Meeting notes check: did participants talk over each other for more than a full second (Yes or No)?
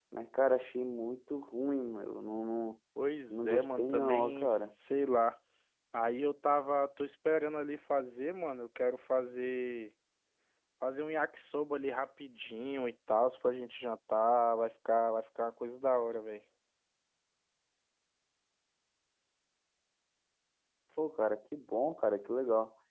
Yes